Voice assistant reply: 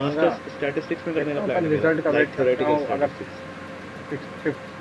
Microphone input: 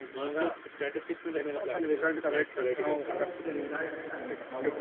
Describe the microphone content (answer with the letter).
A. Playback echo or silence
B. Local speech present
B